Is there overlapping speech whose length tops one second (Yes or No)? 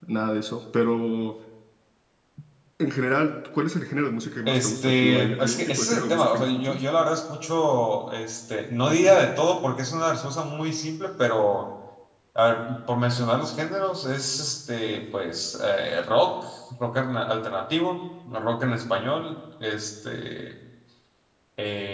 Yes